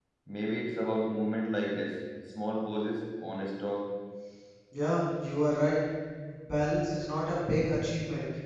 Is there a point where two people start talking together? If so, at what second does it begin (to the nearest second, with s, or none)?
none